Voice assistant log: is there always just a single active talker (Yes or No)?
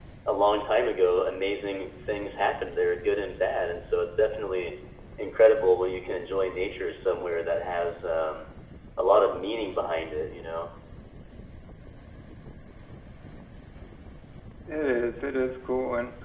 Yes